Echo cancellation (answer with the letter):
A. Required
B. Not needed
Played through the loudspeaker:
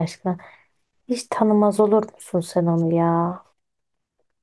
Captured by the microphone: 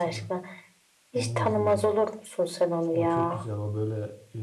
A